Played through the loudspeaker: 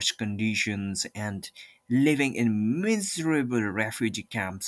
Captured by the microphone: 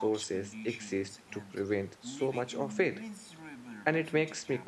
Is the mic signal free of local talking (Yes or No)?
No